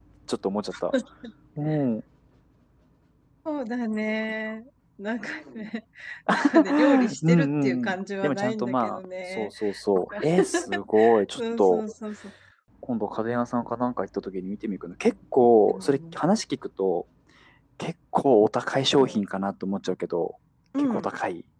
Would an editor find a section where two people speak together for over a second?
Yes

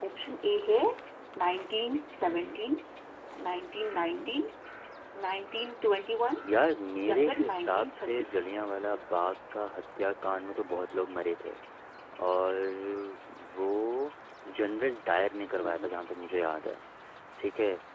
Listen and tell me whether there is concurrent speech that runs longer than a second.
Yes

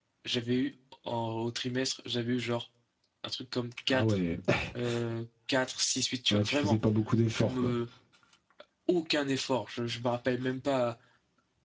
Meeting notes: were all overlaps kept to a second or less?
Yes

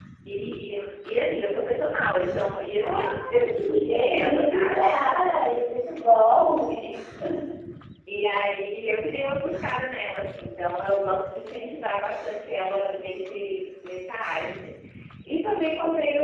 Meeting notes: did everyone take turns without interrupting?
No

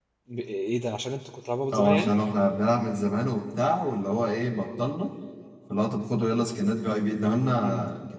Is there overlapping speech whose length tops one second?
No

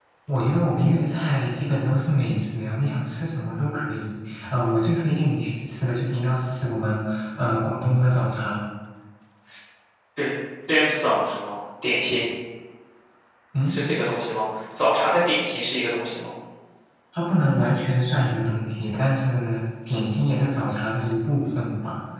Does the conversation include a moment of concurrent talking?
No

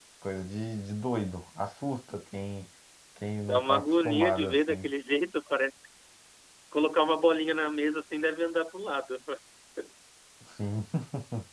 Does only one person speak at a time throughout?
No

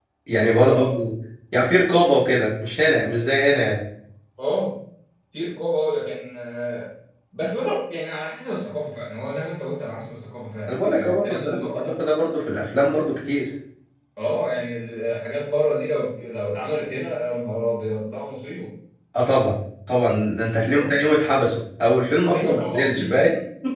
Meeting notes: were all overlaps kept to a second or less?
No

